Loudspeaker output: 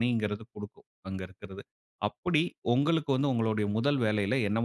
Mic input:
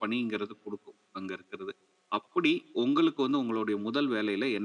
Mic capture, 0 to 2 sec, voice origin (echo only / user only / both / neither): echo only